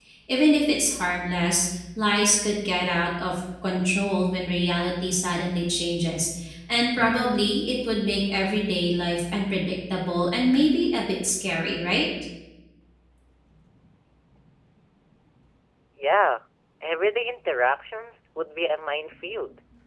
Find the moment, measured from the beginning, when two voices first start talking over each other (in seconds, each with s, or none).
none